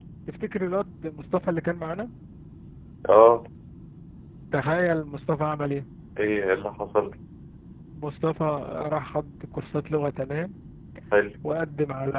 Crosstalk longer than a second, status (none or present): none